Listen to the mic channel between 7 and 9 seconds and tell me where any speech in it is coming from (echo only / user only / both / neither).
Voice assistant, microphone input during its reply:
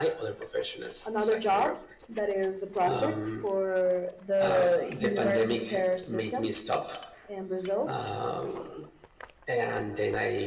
echo only